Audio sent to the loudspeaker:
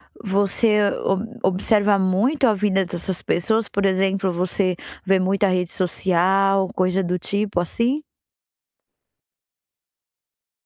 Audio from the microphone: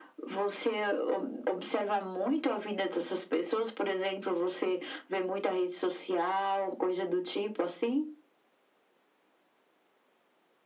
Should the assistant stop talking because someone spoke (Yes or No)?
No